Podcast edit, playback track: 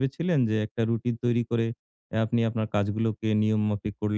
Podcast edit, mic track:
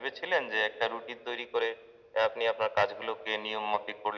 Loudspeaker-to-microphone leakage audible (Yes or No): Yes